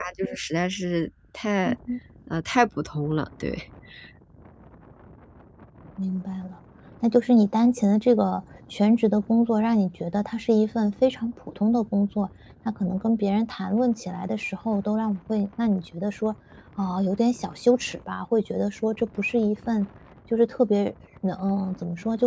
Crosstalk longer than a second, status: none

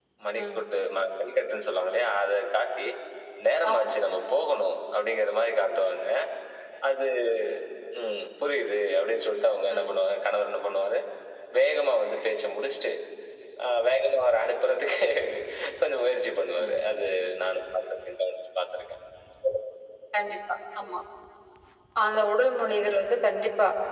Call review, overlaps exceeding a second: none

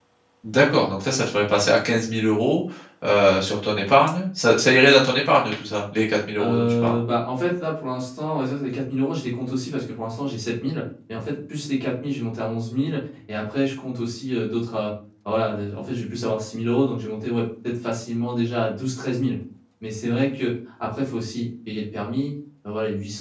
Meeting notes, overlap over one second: none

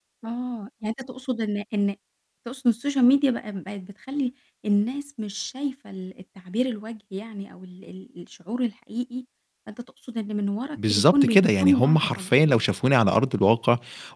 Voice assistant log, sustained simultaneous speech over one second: present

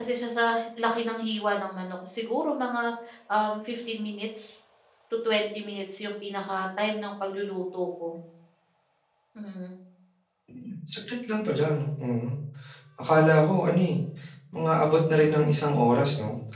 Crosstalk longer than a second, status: none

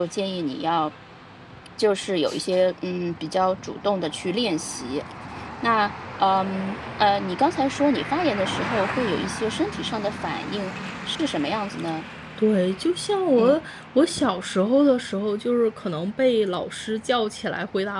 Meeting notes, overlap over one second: none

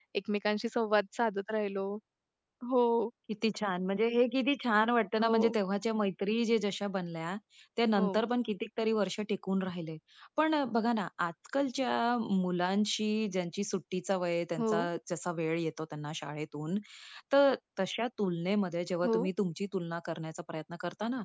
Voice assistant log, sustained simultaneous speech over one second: none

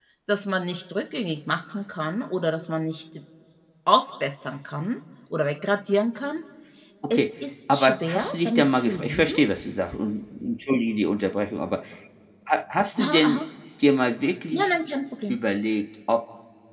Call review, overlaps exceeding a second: present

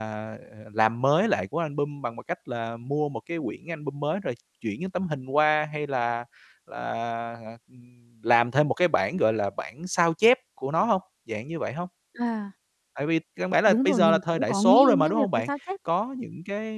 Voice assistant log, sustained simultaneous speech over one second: present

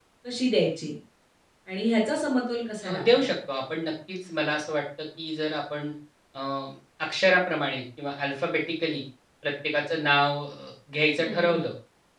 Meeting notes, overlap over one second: none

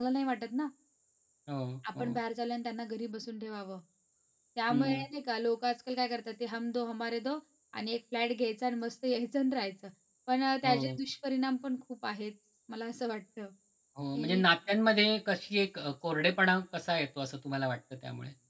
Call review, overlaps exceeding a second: none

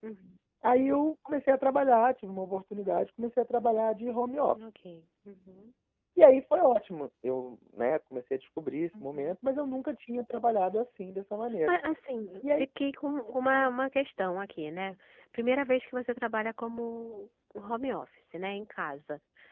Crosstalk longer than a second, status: none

